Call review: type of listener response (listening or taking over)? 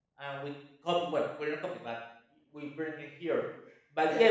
taking over